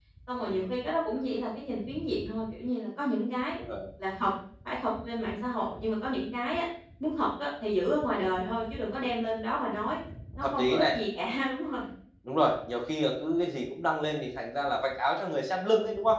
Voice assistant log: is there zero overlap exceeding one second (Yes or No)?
Yes